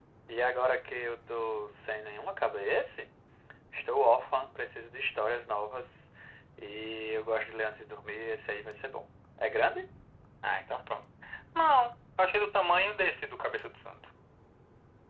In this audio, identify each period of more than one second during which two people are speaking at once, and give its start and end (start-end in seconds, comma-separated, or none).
none